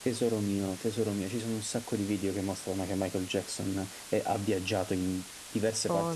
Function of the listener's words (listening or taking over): listening